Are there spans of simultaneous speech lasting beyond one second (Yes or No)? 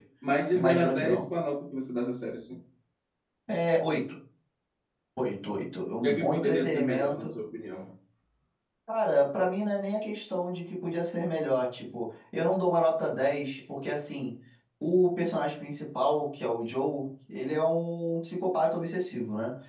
Yes